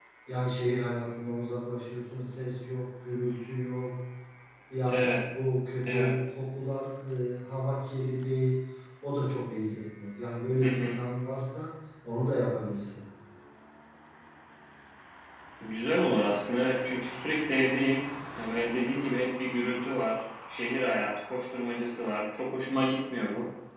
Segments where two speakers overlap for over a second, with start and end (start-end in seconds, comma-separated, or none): none